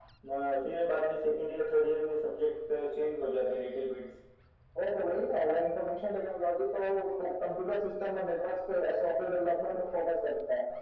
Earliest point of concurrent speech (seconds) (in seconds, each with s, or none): none